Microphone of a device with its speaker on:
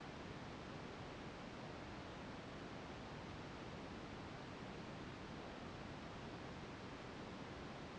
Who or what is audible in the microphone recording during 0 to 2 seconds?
neither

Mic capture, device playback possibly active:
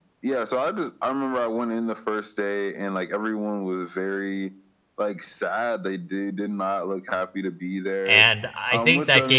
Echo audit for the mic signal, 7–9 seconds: both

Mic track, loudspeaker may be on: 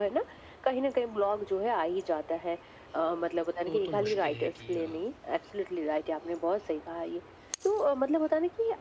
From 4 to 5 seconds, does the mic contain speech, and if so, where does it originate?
both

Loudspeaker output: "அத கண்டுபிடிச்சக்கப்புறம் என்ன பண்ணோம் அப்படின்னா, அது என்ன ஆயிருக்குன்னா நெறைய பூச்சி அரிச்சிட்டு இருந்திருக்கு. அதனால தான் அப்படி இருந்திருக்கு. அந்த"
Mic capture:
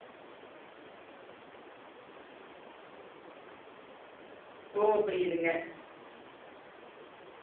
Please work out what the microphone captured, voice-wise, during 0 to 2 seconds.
neither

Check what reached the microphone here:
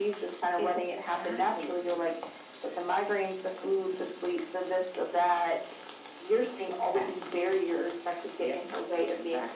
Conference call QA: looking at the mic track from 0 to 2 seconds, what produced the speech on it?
echo only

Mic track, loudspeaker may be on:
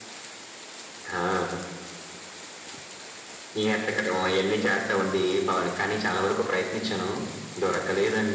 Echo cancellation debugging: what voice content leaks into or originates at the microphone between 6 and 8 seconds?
echo only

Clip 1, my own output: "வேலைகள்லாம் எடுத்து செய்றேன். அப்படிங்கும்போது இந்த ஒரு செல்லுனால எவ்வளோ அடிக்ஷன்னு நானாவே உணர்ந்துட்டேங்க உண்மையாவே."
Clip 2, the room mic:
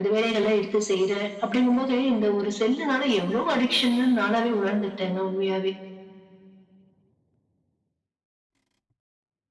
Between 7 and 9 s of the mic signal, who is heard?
neither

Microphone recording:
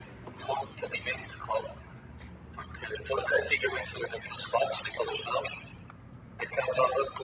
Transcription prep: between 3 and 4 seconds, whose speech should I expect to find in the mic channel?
echo only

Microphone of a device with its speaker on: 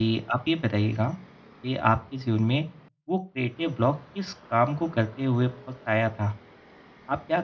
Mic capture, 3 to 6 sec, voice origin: user only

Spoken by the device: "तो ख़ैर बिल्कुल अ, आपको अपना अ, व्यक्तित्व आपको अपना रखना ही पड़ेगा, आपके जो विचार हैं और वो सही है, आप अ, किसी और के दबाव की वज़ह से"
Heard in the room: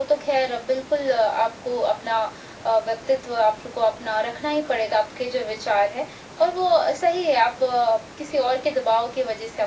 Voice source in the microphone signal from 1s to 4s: echo only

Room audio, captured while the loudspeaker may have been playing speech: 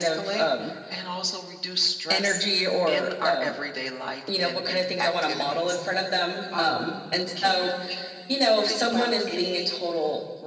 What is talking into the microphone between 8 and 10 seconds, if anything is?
echo only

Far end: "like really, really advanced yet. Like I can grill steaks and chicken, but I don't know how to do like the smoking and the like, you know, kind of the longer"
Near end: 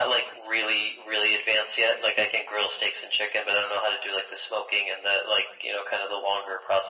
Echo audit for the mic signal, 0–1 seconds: echo only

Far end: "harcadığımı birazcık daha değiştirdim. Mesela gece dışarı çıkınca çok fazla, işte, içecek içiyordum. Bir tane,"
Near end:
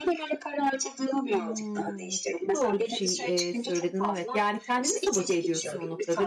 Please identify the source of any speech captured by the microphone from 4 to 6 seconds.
both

